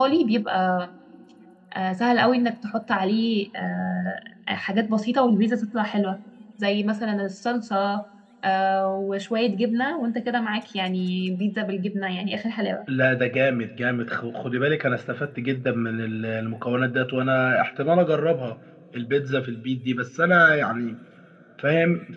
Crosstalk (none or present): none